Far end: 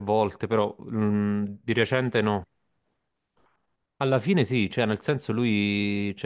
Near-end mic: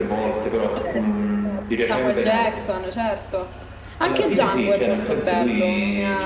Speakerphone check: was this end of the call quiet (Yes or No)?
No